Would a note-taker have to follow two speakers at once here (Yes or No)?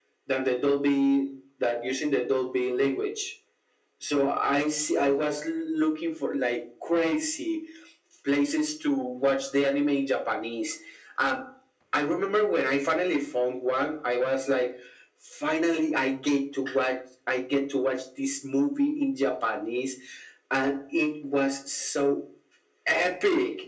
No